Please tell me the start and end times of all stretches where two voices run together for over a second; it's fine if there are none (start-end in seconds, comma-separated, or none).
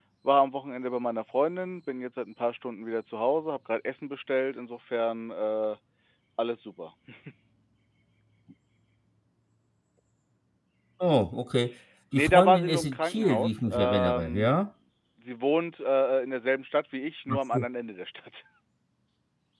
12.1-14.5